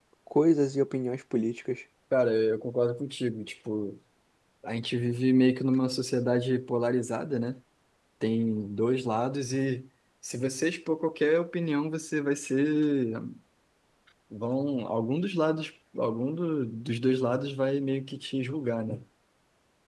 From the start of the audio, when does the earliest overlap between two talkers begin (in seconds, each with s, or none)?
none